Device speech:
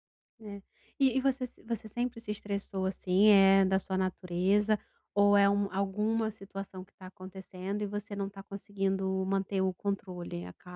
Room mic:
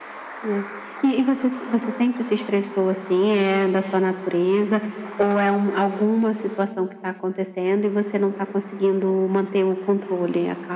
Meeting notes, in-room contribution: none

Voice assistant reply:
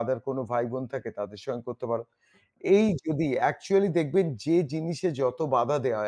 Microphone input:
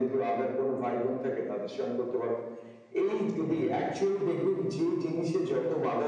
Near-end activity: present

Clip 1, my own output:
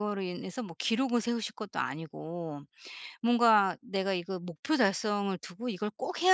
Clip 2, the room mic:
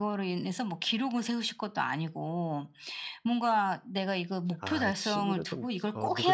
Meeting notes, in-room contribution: present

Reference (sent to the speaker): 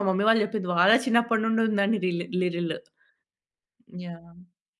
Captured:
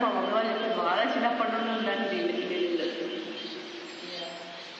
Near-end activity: none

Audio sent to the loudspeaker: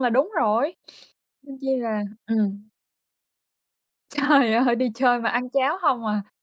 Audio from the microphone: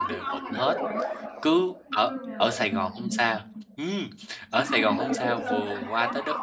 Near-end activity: present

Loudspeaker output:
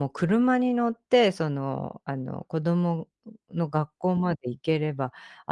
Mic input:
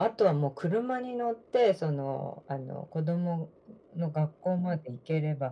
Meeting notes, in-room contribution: none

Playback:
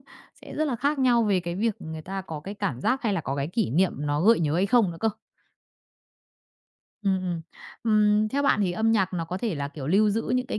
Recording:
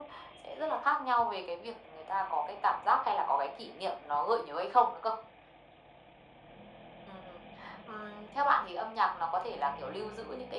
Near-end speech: none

